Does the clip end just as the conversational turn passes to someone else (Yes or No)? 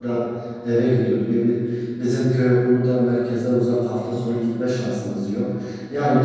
No